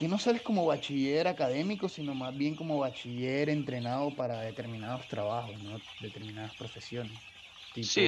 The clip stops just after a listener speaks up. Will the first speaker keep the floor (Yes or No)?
No